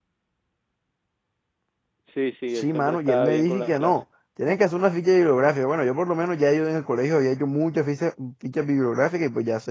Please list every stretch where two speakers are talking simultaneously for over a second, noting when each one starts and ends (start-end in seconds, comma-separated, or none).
2.5-3.9